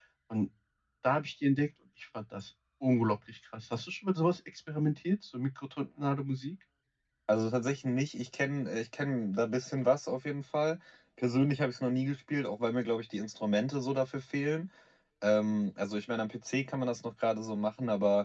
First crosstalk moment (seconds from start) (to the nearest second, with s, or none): none